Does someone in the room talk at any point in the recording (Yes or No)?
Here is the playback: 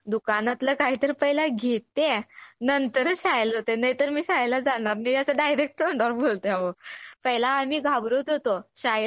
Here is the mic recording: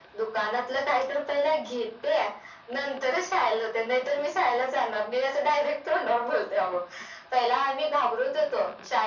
No